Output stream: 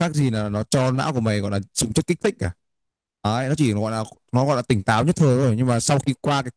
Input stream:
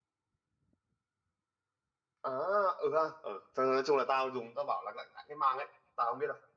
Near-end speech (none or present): present